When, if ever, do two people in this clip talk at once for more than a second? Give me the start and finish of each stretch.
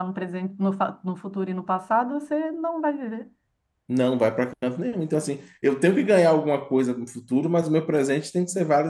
none

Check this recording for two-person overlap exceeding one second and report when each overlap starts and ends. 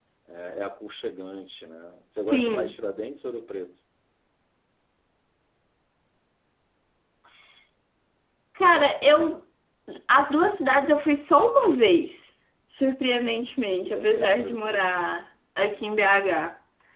13.8-15.1

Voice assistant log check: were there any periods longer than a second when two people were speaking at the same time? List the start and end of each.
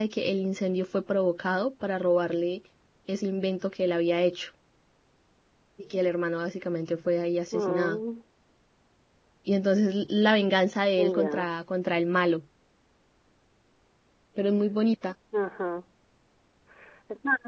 none

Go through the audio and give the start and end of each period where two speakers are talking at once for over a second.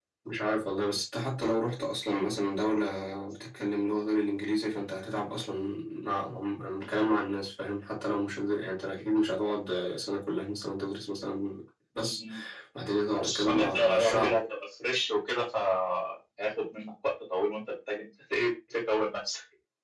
13.2-14.4

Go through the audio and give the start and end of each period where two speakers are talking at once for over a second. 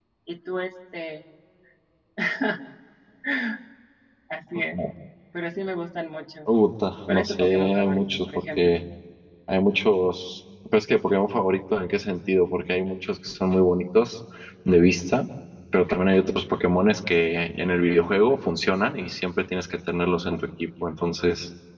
7.1-8.8

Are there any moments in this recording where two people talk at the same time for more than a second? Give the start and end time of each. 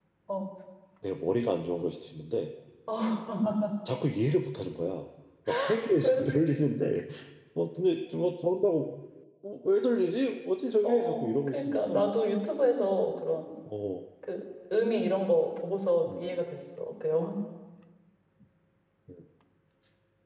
10.8-12.1

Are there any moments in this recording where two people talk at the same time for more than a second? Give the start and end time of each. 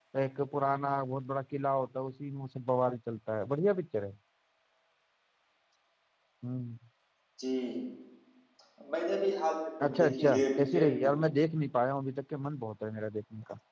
9.8-11.2

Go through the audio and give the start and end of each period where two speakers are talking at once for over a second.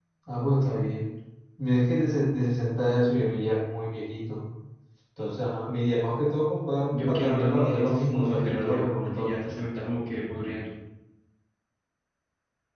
6.9-9.3

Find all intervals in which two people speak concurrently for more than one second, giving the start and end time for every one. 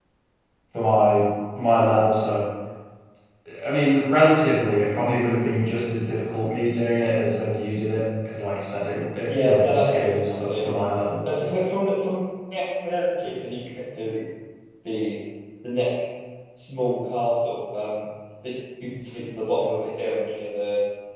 9.3-10.5

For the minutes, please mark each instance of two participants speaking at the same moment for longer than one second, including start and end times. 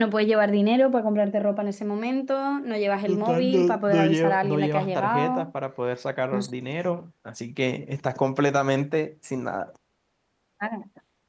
3.1-5.5

